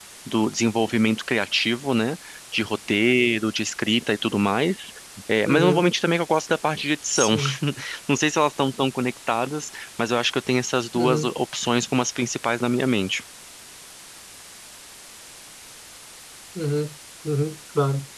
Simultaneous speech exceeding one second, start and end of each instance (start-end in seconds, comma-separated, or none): none